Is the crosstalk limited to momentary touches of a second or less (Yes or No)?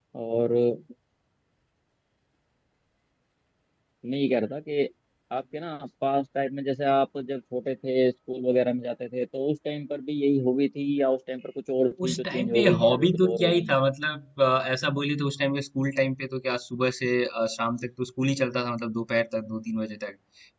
No